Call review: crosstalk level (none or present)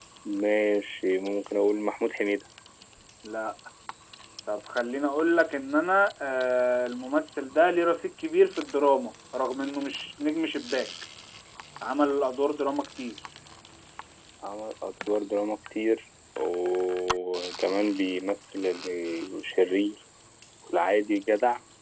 none